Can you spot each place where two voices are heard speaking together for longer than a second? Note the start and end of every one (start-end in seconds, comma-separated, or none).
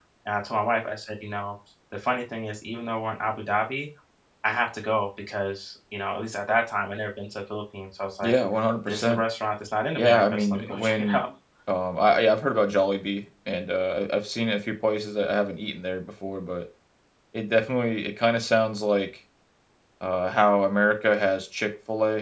10.0-11.2